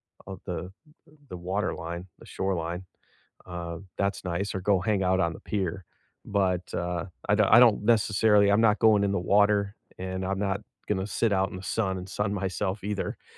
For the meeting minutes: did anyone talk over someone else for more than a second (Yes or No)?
No